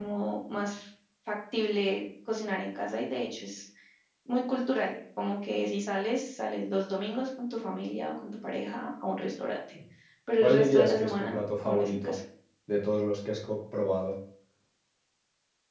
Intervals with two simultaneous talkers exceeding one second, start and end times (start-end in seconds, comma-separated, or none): 10.4-12.1